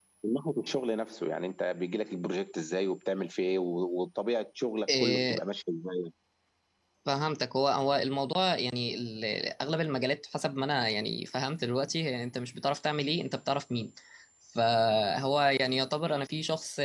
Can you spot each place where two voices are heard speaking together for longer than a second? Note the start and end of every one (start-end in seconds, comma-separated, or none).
none